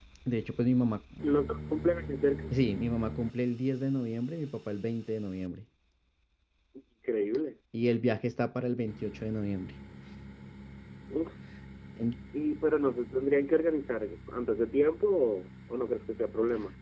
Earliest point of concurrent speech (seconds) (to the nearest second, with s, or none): none